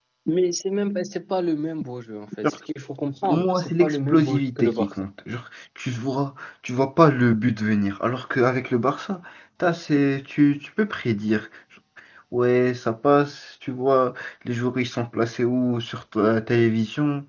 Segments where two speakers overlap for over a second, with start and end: 3.2-4.9

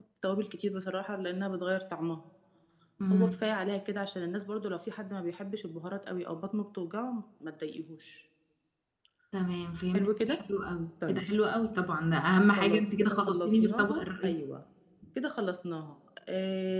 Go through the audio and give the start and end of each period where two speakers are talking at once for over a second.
12.6-14.3

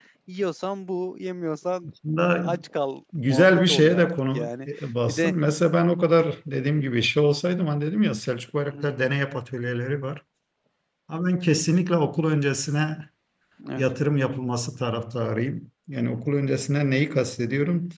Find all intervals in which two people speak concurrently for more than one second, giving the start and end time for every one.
3.3-4.7

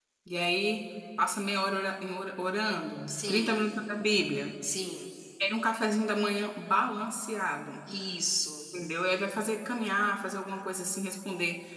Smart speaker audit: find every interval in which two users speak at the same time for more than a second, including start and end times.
none

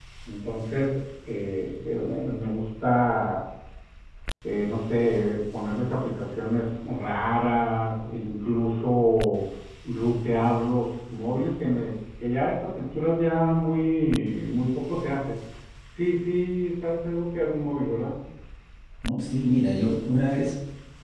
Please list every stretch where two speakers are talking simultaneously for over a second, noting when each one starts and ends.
none

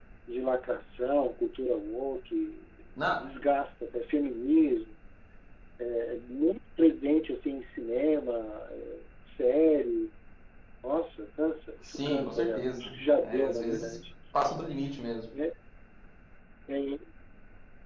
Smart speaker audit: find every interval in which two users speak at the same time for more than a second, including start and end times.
11.8-14.0

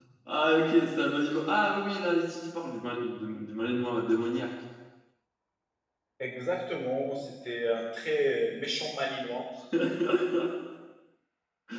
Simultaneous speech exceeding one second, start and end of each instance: none

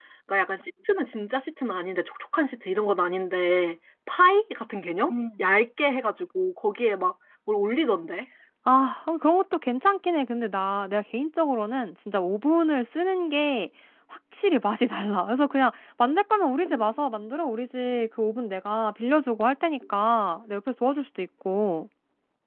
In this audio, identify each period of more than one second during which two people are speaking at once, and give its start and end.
none

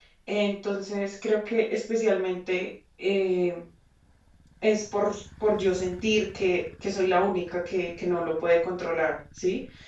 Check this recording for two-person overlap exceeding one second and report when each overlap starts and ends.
none

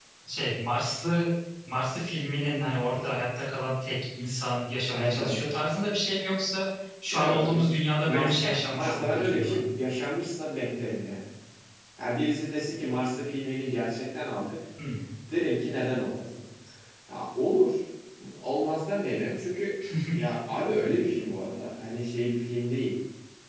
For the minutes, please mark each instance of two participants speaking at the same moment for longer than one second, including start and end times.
8.0-9.6

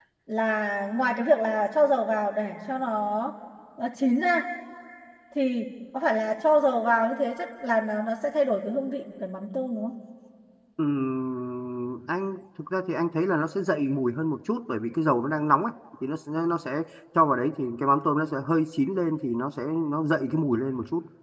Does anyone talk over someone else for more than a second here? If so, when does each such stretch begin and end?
none

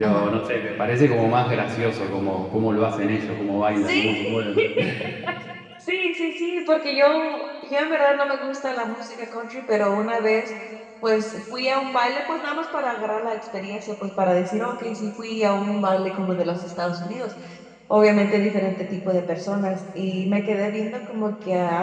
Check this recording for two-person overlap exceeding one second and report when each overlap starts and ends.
none

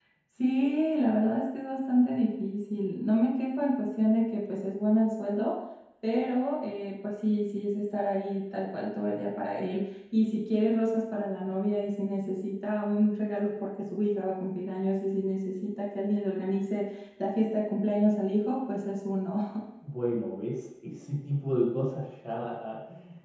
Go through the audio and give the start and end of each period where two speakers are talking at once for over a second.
none

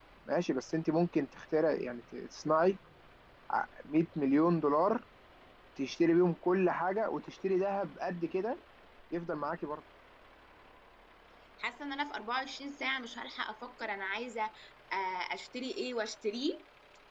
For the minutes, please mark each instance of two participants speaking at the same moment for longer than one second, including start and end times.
none

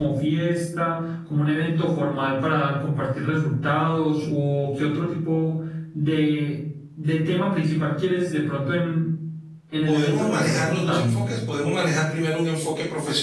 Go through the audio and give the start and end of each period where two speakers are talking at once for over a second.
9.9-11.3

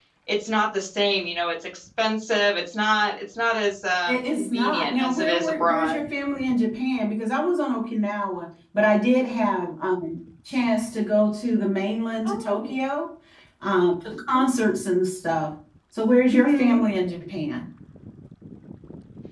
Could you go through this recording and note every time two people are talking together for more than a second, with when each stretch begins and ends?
4.1-6.0

